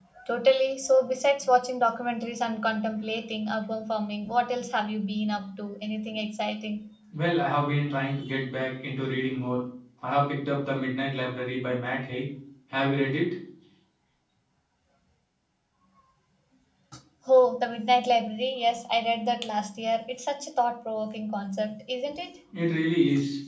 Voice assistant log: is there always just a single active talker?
Yes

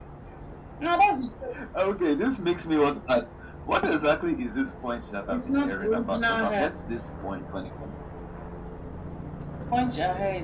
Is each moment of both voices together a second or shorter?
No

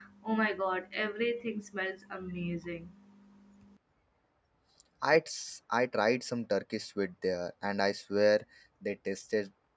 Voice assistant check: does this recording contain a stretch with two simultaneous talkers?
No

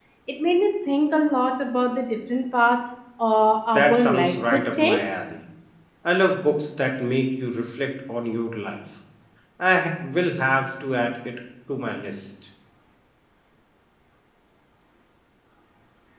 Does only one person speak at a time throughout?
No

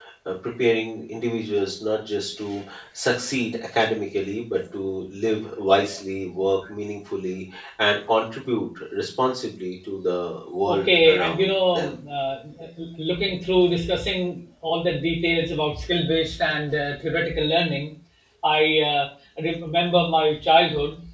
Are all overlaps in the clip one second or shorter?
No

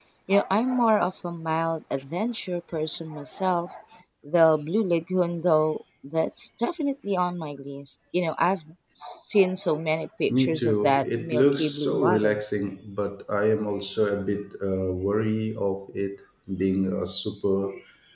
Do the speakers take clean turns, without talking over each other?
No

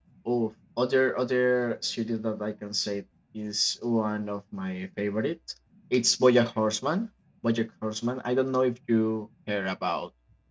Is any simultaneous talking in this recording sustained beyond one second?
No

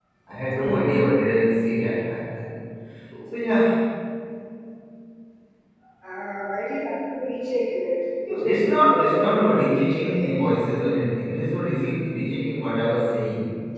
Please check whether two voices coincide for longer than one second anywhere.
Yes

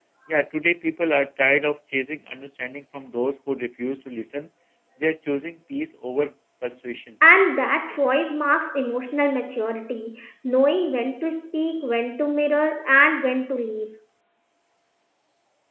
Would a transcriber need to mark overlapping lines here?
No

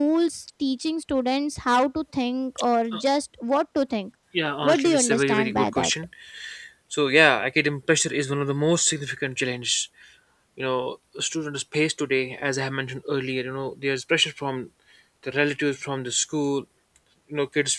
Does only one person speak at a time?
No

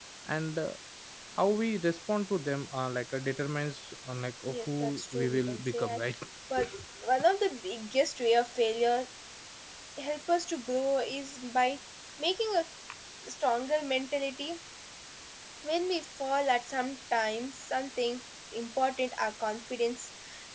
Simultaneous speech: Yes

